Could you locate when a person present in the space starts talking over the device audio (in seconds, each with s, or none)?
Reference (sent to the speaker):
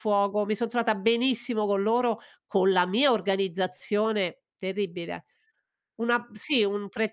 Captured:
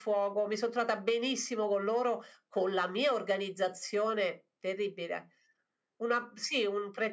none